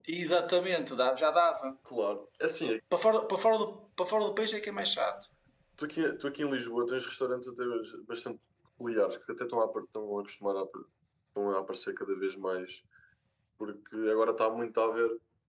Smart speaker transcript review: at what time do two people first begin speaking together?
none

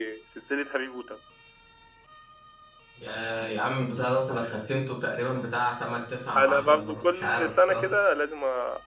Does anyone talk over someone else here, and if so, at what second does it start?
6.3 s

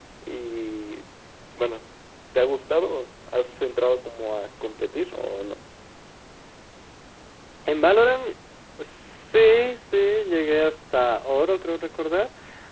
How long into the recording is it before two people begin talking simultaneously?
none

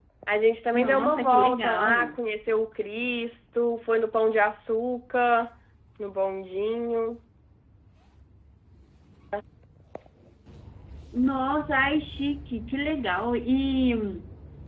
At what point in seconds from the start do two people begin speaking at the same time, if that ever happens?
0.7 s

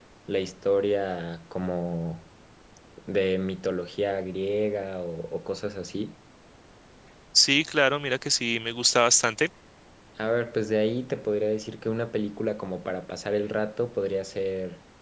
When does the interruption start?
none

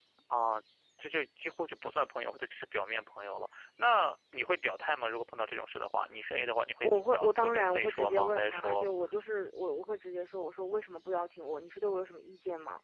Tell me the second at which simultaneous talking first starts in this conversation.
6.8 s

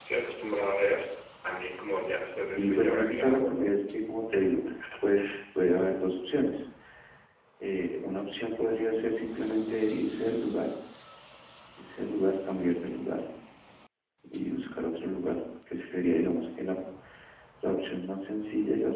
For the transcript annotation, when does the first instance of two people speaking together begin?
2.5 s

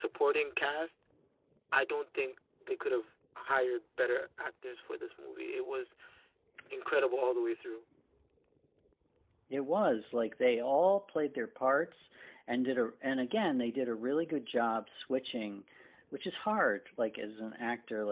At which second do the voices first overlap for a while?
none

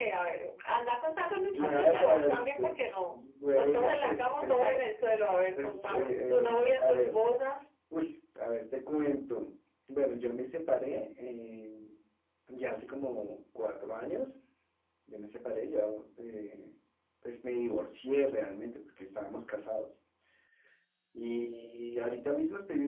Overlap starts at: 1.5 s

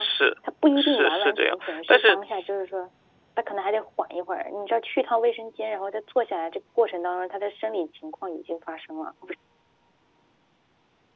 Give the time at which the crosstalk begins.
0.8 s

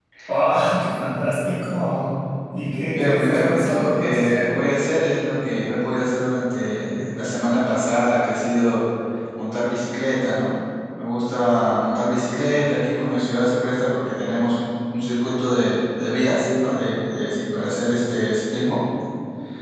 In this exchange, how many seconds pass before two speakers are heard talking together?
2.9 s

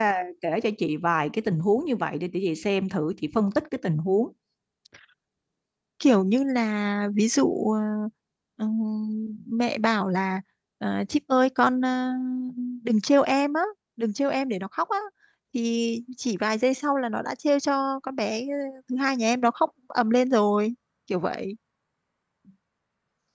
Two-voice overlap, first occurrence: none

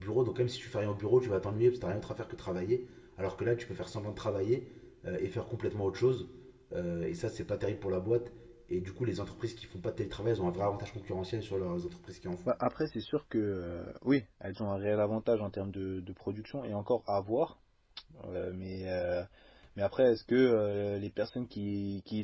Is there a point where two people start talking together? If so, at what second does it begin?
none

